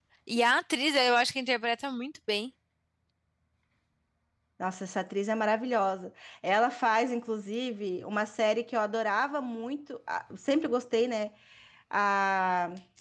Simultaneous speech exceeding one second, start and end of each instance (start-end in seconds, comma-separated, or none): none